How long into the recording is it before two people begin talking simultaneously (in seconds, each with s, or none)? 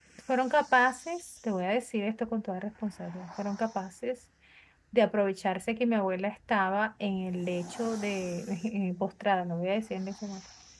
none